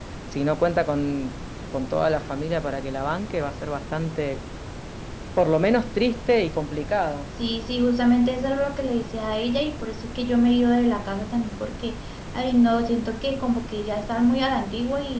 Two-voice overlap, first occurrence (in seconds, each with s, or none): none